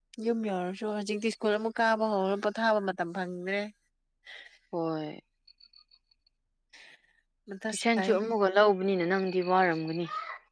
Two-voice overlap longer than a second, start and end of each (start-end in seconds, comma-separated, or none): none